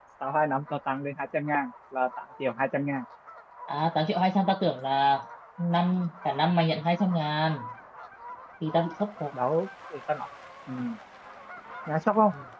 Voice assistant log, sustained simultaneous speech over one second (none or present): none